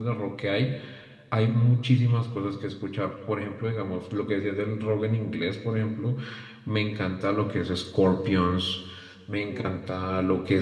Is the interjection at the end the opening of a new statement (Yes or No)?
No